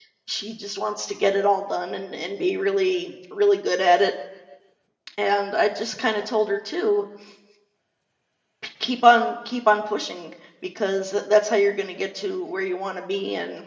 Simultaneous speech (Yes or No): No